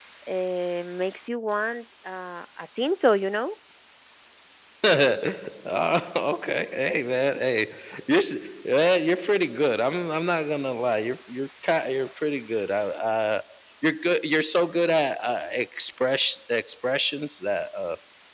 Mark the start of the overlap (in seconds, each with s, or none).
none